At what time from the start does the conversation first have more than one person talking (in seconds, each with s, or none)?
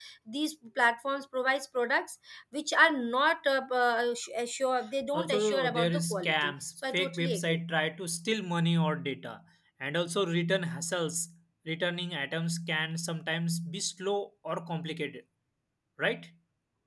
5.1 s